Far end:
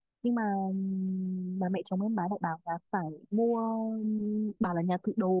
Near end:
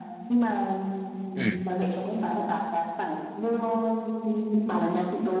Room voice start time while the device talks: 1 s

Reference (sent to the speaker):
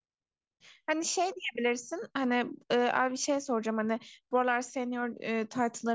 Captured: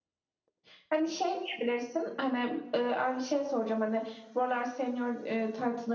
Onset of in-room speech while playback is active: none

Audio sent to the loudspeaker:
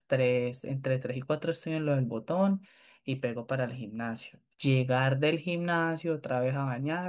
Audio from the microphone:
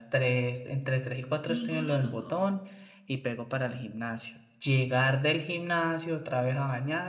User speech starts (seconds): 1 s

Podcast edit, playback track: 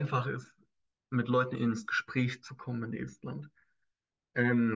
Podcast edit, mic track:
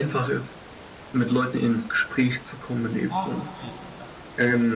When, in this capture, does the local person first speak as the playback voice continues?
3 s

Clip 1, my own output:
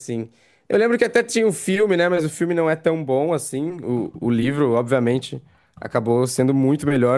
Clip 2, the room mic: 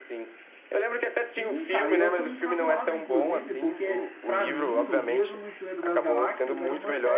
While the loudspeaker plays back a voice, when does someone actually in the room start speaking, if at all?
1 s

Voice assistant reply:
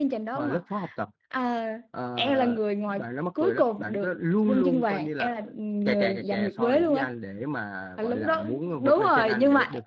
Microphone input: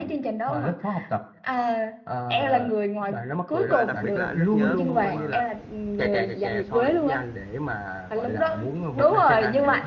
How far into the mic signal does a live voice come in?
4 s

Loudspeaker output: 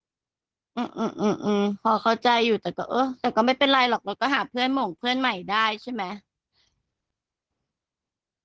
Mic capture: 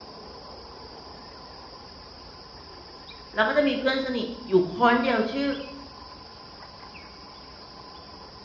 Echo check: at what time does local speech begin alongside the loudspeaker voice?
3 s

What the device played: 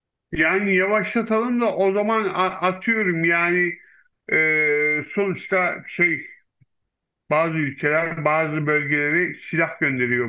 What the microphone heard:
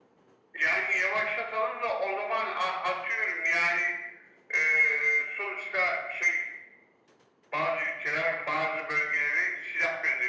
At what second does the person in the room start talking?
none

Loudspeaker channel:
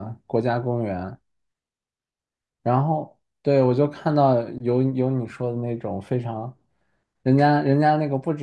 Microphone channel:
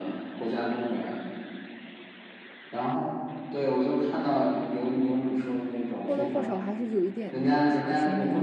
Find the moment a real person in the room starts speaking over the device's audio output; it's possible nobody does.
6 s

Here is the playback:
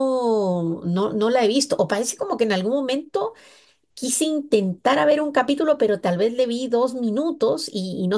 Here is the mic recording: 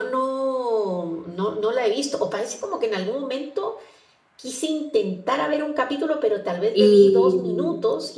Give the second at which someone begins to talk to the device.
7 s

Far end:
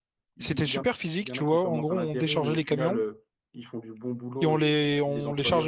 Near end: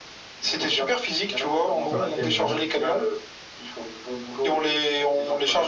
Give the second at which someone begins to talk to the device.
2 s

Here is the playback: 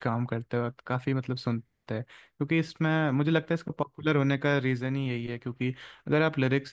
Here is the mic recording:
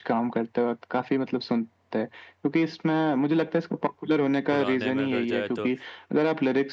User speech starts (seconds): 4 s

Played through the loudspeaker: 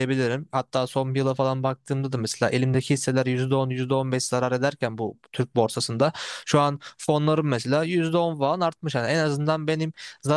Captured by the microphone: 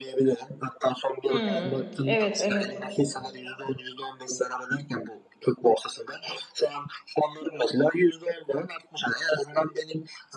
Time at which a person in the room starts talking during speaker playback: 1 s

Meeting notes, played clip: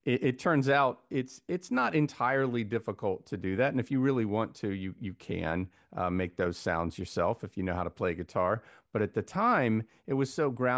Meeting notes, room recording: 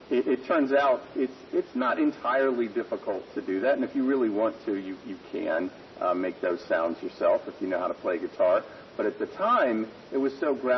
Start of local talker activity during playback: none

